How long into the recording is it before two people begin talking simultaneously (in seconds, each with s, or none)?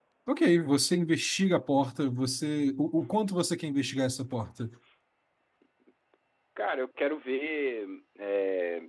none